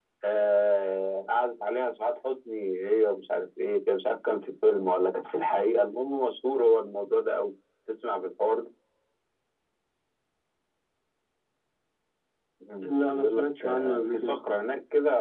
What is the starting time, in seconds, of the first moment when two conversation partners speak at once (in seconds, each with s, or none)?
12.8 s